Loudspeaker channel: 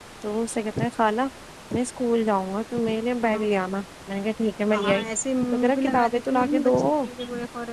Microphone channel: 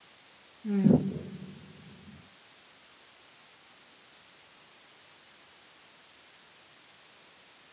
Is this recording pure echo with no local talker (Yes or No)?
No